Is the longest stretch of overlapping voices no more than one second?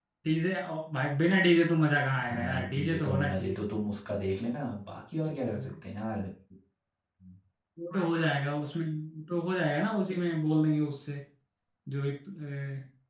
No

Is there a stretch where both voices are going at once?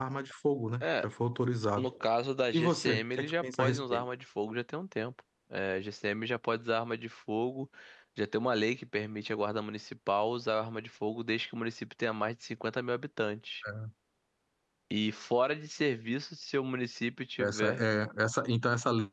Yes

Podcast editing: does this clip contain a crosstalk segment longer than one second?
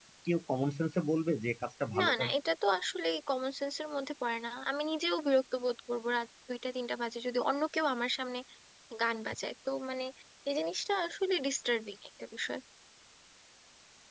No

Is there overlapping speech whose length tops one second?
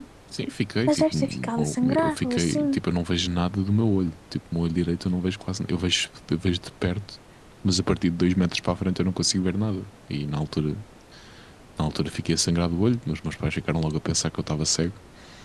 Yes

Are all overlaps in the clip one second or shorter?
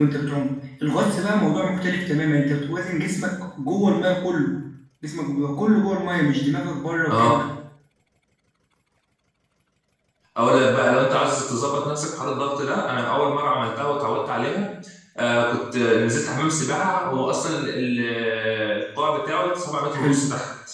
Yes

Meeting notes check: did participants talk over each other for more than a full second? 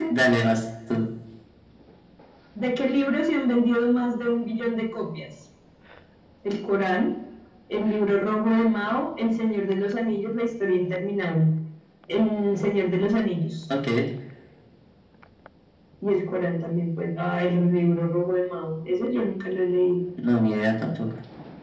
No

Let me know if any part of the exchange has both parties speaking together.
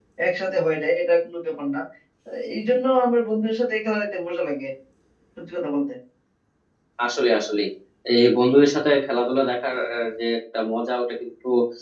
No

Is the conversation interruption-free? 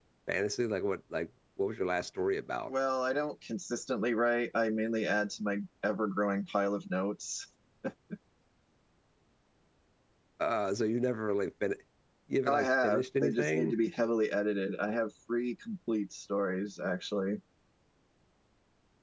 No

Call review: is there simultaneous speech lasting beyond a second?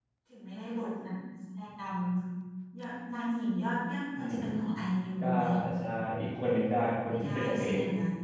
Yes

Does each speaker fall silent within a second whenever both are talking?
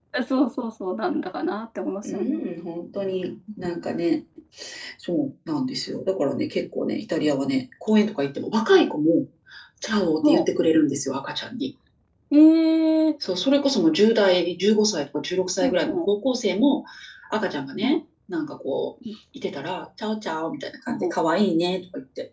Yes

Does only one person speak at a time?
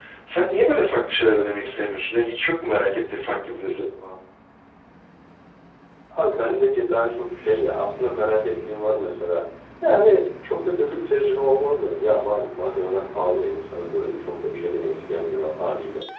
Yes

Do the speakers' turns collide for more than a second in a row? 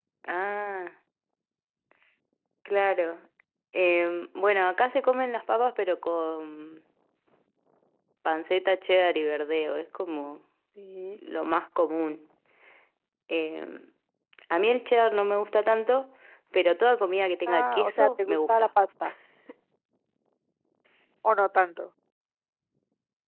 Yes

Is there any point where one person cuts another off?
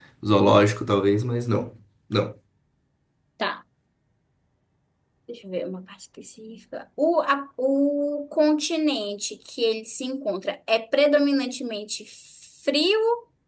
No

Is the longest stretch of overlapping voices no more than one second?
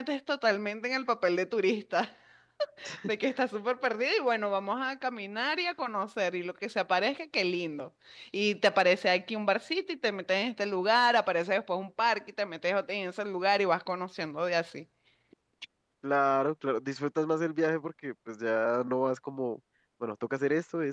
Yes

